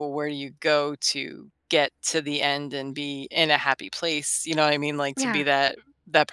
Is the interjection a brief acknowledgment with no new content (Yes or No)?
Yes